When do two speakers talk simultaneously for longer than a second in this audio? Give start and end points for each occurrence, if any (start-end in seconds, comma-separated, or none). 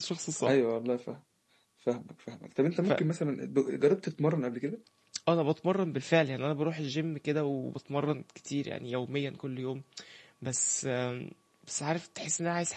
none